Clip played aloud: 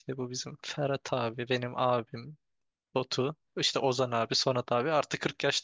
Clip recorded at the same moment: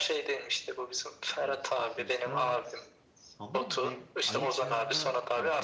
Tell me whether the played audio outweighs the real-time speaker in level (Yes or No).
Yes